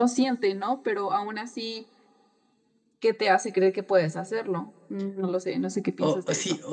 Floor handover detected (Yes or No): Yes